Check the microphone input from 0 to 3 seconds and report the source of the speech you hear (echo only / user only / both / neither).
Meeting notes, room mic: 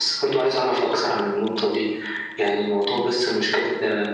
echo only